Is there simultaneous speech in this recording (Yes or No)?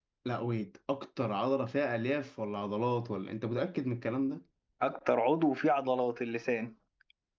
No